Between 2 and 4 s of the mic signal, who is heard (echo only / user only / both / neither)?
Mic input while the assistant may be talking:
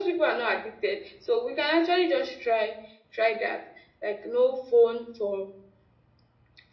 echo only